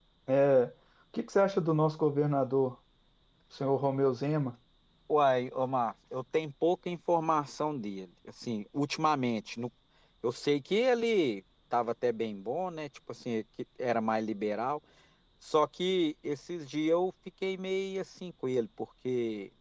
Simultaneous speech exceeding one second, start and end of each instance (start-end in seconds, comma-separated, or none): none